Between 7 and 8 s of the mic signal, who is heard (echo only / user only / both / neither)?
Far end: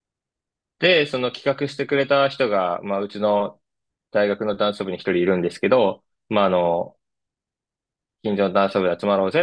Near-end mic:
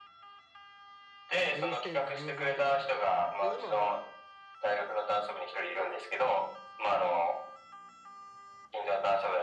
echo only